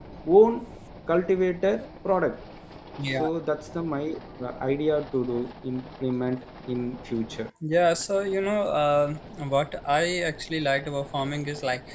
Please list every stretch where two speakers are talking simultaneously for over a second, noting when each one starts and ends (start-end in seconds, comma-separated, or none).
none